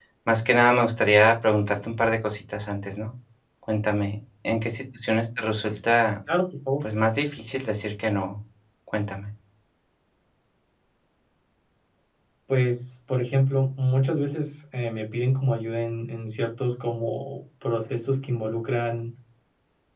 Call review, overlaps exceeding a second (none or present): none